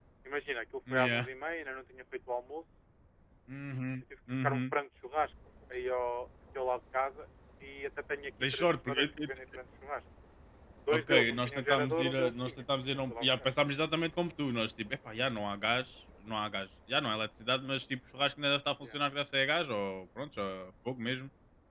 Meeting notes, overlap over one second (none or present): present